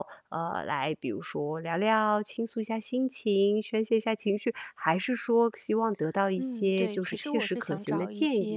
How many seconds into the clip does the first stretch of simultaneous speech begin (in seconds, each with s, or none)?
6.4 s